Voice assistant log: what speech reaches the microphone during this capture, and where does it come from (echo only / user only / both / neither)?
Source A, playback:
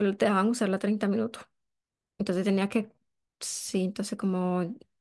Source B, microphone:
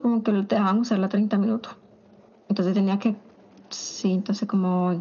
echo only